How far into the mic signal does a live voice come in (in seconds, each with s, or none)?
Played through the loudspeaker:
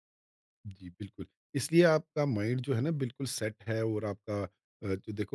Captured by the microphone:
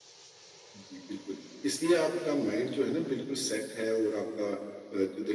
none